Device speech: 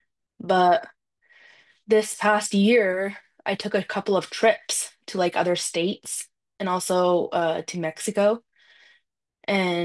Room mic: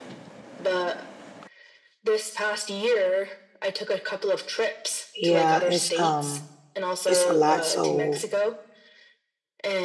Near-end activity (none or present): present